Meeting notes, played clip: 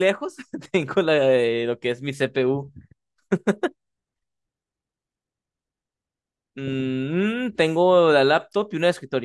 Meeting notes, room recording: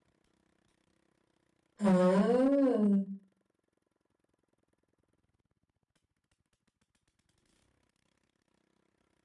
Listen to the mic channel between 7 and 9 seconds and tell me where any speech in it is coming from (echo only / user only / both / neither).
neither